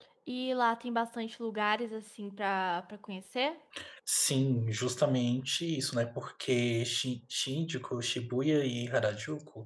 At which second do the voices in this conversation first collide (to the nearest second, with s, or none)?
none